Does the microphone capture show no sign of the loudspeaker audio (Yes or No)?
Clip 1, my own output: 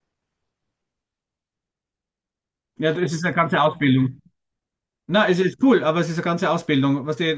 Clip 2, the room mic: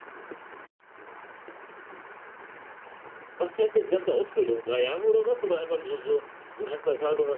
Yes